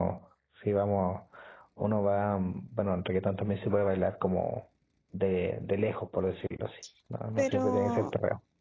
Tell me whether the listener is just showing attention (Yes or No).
No